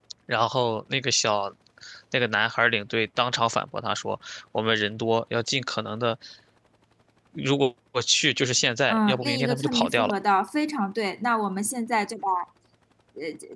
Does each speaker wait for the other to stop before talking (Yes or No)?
No